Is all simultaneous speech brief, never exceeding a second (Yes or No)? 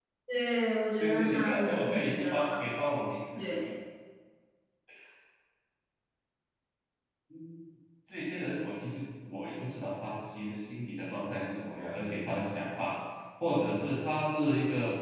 No